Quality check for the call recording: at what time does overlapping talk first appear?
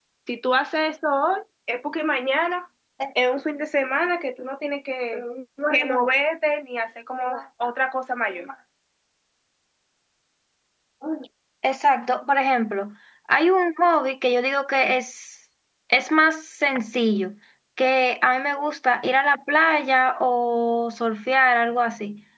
none

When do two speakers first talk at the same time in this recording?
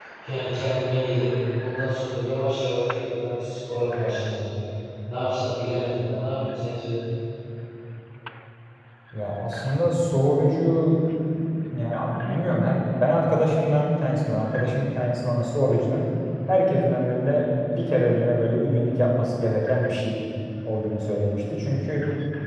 none

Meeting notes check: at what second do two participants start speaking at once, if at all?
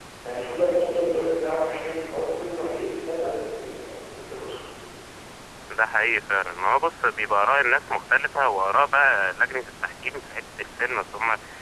none

